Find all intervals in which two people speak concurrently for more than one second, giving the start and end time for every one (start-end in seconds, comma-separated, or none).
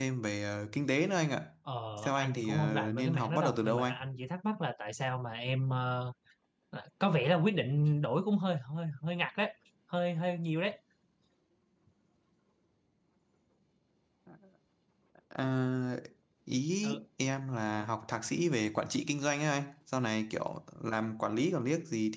2.0-3.9